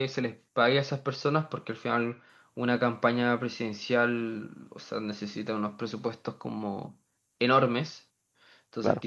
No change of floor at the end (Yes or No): Yes